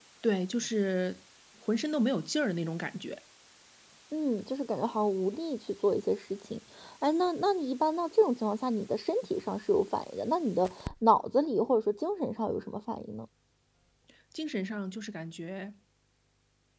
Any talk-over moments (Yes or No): No